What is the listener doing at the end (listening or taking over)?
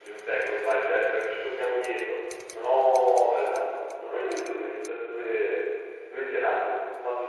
listening